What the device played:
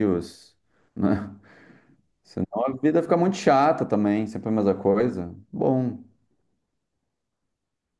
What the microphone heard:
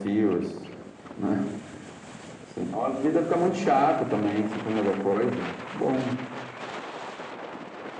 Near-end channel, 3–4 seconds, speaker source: echo only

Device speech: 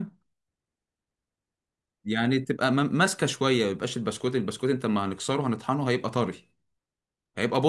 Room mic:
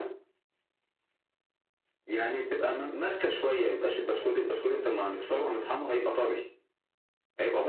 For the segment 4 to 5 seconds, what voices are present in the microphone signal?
echo only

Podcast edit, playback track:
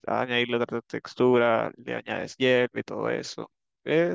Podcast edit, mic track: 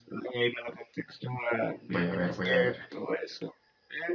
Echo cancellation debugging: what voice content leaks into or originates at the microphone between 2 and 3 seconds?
both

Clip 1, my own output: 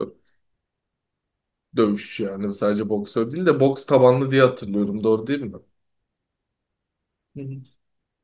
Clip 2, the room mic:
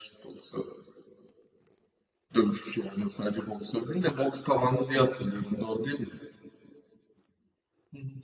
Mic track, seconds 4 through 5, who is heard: echo only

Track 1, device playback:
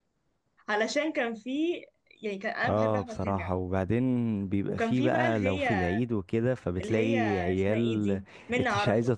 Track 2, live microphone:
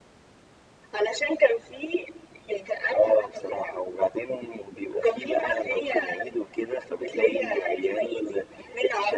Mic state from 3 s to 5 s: echo only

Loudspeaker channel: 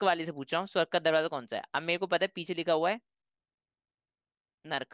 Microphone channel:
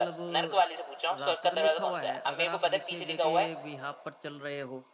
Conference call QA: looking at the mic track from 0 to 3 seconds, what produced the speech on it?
both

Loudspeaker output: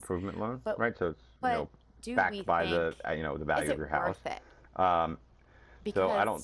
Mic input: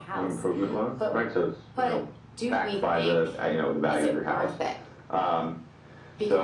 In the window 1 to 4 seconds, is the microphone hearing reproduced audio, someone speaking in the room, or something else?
echo only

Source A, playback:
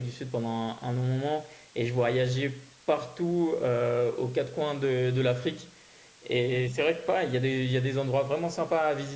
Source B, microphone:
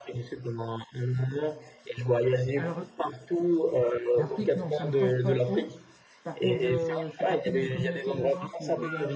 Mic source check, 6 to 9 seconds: both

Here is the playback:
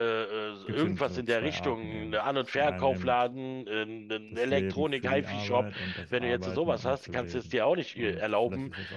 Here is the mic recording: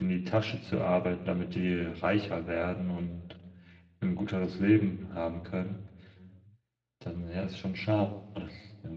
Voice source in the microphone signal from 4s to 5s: user only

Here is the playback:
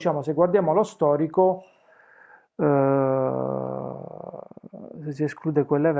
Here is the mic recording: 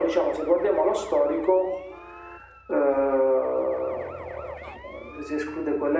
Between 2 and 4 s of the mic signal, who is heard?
echo only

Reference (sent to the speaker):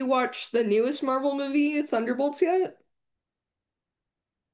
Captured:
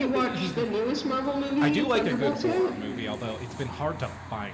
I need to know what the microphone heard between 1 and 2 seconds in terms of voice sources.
both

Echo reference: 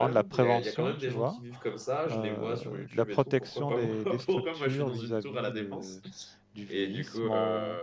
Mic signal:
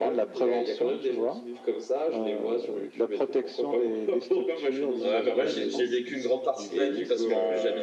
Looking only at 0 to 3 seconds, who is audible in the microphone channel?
echo only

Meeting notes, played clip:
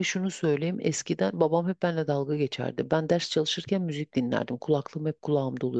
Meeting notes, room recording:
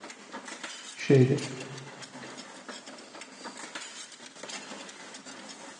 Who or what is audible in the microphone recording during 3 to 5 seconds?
neither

